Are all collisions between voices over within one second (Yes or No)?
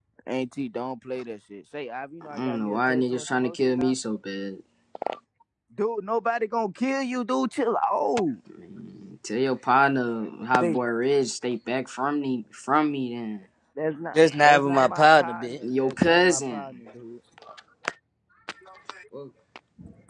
No